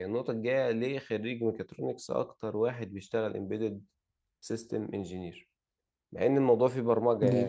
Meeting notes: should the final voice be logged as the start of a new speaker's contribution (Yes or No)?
No